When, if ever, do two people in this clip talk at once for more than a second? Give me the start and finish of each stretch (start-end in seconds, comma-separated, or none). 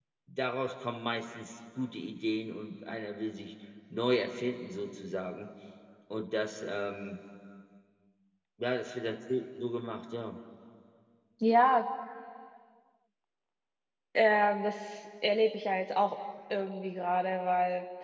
none